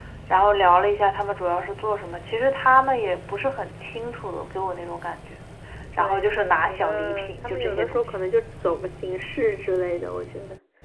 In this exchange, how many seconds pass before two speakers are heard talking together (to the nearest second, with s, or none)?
6 s